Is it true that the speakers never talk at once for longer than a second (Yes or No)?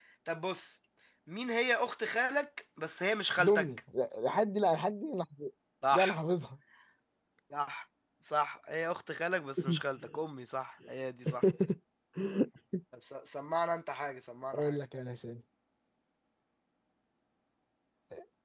Yes